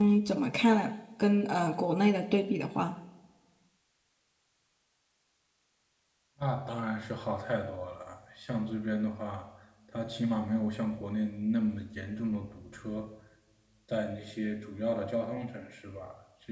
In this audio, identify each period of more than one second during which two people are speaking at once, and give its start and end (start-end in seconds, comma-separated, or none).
none